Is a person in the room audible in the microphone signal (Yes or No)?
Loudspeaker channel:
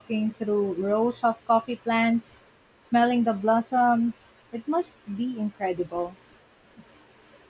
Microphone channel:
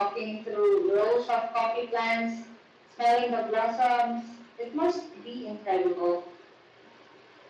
No